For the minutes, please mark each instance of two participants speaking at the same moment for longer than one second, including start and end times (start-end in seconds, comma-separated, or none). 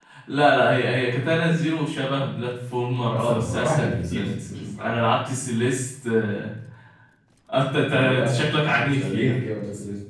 3.1-5.0, 7.9-9.4